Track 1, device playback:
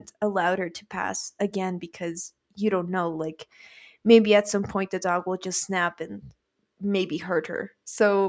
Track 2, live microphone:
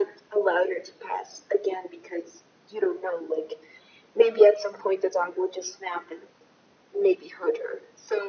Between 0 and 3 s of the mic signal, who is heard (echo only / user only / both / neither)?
echo only